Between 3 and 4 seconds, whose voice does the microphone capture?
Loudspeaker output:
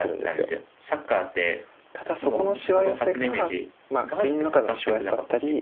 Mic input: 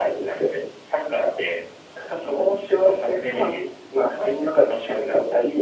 echo only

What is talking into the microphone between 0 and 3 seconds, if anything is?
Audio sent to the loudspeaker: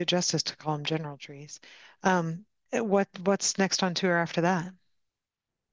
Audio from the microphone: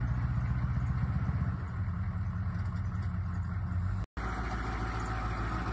neither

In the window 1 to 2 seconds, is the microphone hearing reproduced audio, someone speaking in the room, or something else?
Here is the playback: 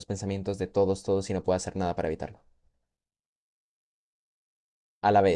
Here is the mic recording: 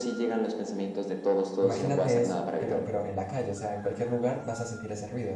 both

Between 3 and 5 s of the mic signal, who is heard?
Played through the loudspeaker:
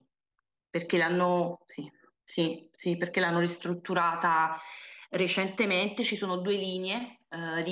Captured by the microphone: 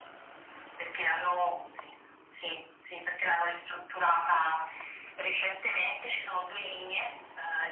echo only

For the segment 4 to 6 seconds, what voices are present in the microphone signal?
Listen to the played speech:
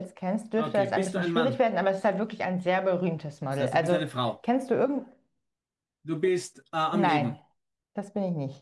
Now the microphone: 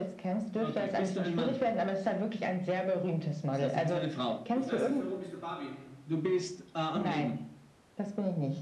both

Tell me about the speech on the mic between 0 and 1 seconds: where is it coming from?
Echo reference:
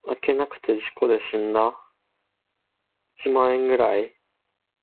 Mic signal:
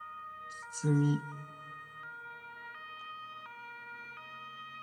user only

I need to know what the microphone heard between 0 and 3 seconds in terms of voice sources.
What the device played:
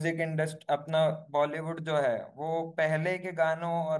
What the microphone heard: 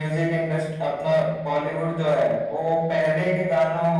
echo only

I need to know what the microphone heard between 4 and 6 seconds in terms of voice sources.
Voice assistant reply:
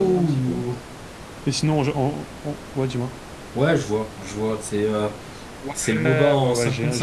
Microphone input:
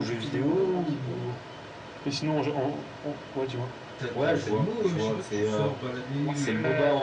both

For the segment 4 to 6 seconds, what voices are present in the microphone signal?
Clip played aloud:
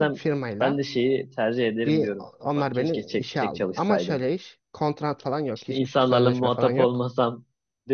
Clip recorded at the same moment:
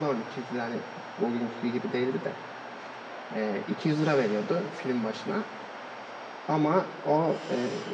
user only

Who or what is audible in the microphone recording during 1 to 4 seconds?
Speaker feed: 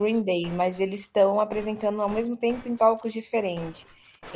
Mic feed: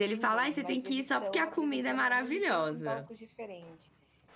both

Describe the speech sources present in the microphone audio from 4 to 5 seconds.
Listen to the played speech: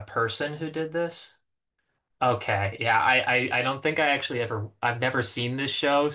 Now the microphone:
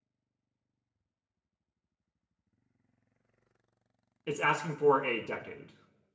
user only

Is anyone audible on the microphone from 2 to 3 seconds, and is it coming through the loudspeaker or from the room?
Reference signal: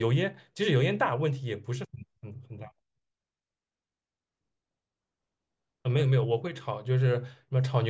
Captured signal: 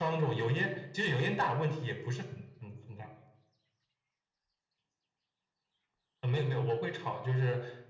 echo only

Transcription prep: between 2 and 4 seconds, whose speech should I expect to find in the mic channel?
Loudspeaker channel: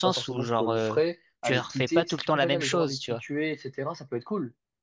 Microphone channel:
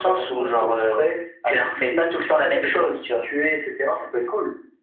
echo only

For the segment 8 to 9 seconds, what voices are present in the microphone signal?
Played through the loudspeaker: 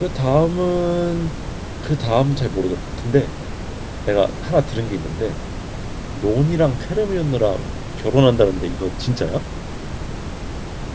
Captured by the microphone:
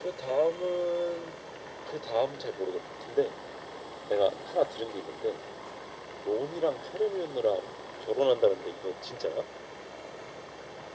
echo only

